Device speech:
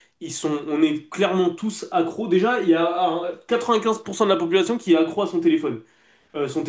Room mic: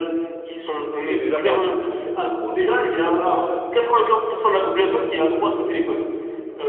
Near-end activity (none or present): present